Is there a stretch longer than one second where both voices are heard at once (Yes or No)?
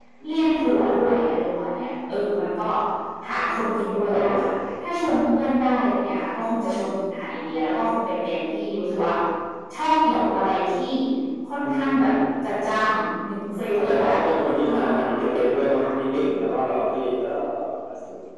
Yes